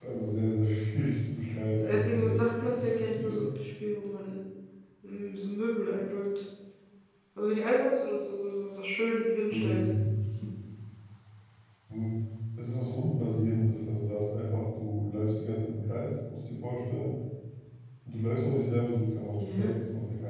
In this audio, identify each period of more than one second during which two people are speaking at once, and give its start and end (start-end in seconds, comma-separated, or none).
1.8-3.5